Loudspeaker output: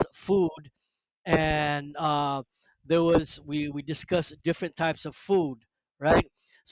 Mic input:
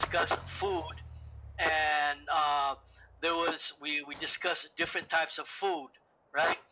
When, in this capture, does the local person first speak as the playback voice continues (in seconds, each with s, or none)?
none